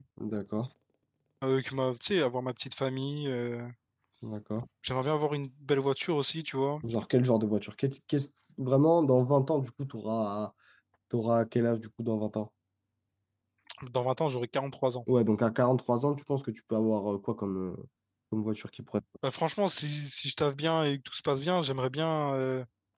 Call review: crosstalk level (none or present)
none